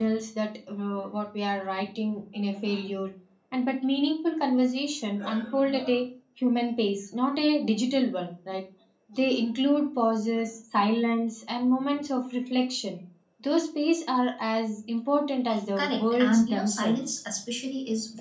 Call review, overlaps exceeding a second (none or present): present